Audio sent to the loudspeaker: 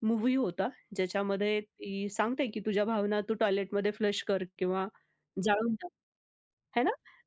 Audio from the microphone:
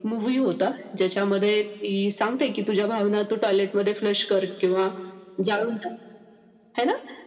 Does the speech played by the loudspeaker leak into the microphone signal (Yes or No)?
Yes